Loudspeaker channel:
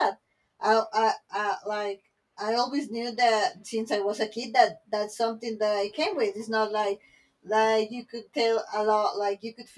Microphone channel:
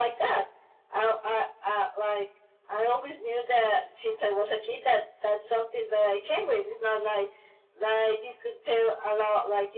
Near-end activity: none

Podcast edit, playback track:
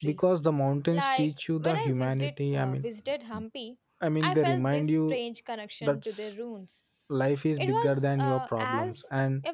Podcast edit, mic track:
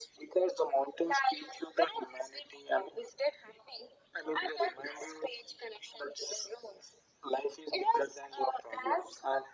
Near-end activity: none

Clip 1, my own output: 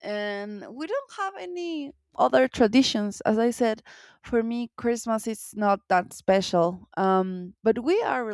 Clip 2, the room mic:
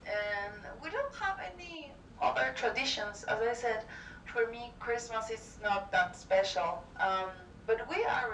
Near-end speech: none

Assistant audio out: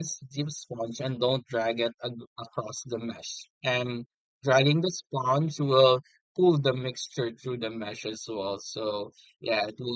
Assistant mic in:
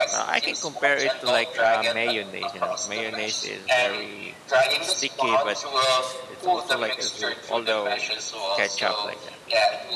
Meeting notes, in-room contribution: present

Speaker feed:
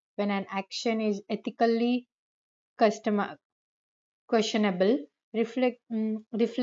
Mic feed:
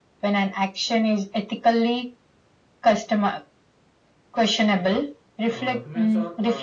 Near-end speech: present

